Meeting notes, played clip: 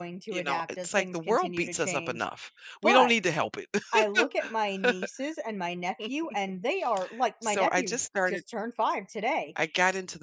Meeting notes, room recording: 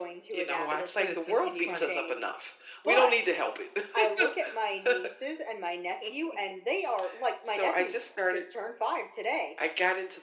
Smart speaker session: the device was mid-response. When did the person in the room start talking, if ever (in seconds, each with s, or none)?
0.5 s